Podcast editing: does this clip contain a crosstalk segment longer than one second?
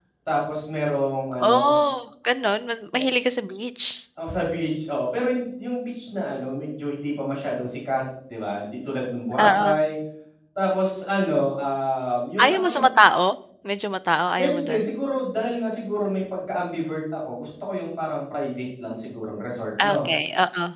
No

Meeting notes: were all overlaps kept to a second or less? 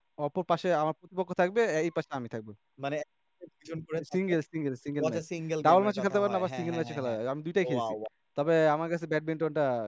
No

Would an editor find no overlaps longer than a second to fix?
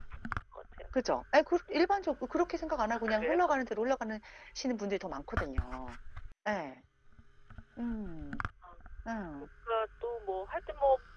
Yes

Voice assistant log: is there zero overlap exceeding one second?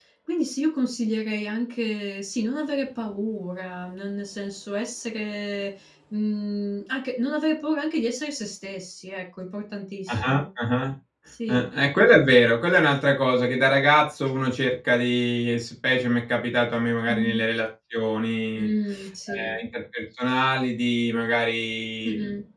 Yes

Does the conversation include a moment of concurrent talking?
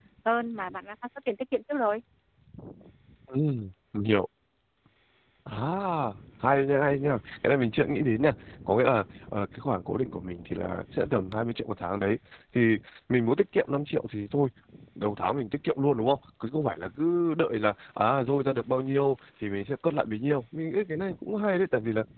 No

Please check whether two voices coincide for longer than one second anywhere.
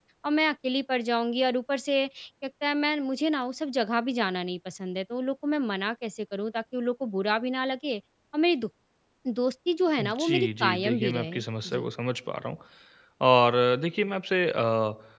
Yes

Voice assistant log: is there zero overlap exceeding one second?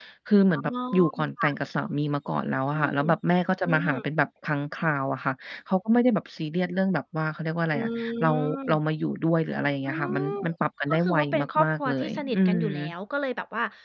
No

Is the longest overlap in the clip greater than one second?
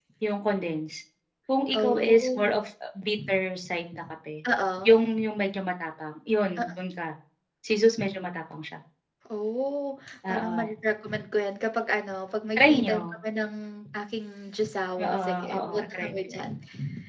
Yes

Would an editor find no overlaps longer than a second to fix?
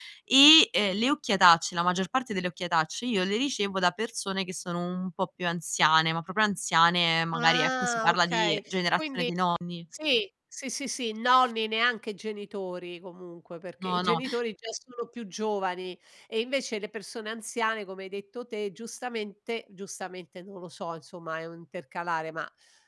No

